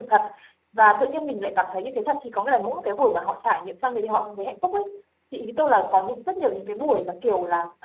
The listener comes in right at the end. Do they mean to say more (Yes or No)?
No